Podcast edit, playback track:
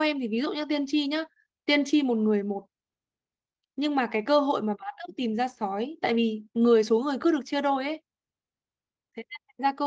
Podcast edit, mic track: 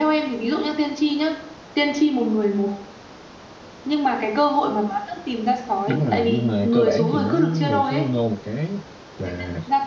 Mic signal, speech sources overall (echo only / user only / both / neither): both